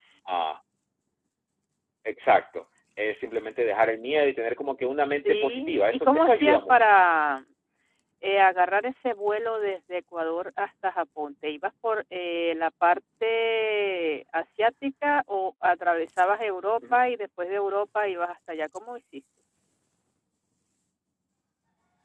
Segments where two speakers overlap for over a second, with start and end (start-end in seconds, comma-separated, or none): 5.3-7.0